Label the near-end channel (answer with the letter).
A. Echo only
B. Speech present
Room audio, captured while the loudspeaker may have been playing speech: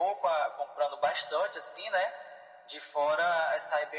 A